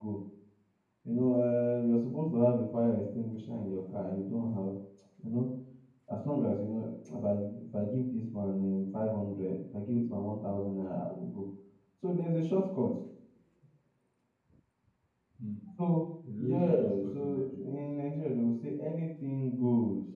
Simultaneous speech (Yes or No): Yes